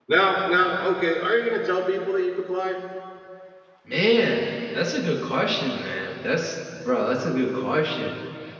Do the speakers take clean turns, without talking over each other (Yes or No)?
Yes